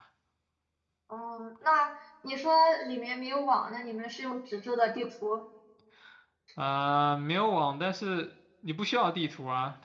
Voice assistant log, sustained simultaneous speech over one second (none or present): none